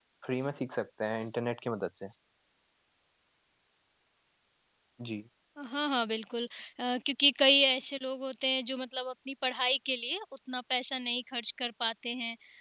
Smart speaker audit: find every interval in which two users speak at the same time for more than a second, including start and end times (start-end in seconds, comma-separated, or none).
none